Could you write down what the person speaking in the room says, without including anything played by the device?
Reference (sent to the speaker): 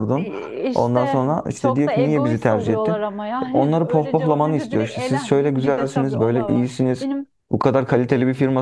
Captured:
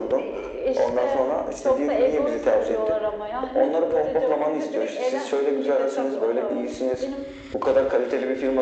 none

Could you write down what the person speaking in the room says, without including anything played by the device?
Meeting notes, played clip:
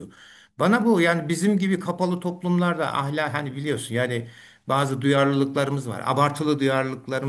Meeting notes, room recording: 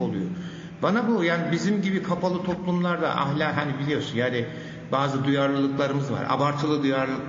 none

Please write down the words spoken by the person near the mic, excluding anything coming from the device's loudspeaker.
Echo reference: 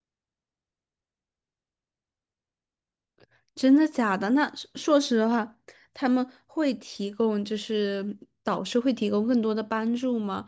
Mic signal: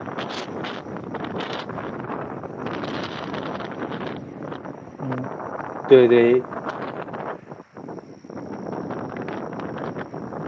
嗯，对对，

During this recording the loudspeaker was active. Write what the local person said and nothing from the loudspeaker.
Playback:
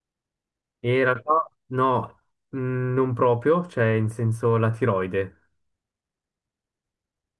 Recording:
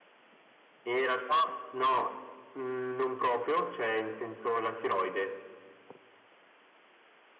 none

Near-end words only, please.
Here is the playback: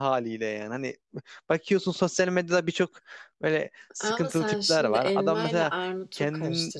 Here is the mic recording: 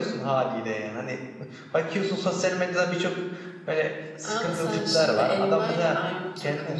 none

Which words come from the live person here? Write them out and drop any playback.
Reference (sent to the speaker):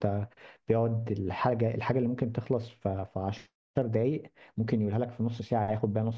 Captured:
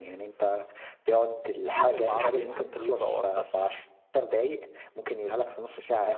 ايه فيلم عربي حبيته او اثر فيك

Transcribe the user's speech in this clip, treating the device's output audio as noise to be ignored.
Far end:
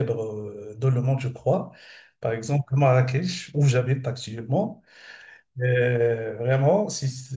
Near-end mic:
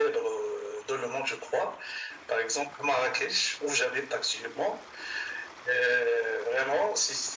none

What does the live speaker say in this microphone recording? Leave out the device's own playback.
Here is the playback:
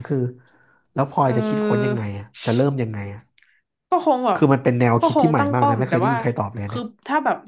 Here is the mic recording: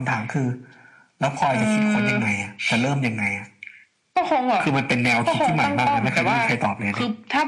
none

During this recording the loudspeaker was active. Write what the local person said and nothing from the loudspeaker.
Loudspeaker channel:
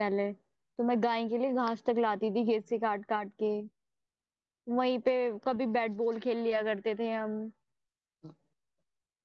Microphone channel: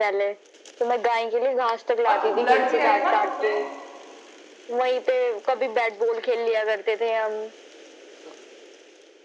और जब ब्लड भी आया ना तो मैं

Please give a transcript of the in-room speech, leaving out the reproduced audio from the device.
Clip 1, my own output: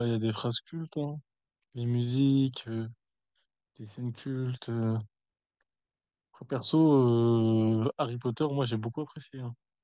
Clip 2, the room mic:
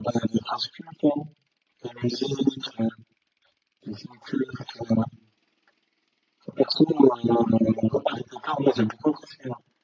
none

